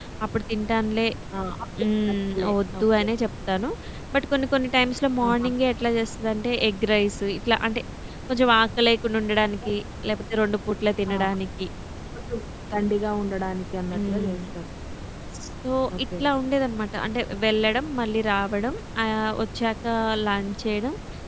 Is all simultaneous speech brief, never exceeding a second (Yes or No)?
No